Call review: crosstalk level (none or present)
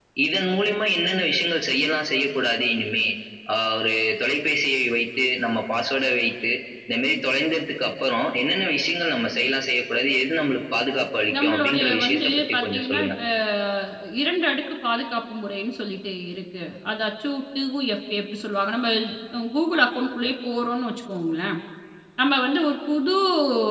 present